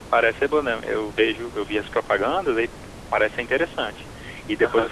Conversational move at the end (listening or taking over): listening